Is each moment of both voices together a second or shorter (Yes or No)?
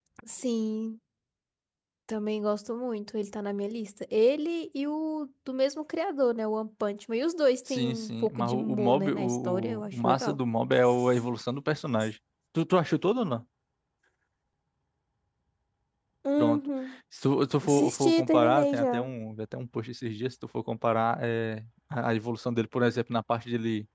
No